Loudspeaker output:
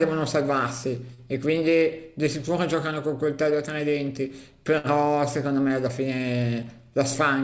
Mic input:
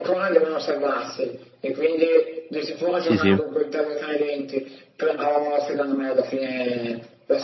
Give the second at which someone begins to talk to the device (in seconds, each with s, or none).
3.0 s